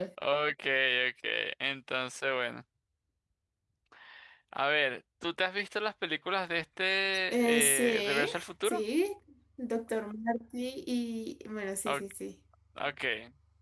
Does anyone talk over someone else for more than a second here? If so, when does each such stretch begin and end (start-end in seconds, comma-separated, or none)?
7.3-8.8